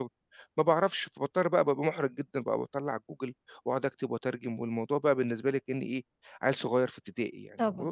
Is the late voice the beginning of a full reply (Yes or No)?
Yes